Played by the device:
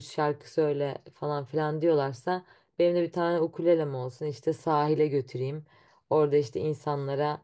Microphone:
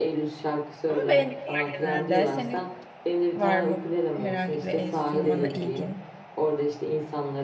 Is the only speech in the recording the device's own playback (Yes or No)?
No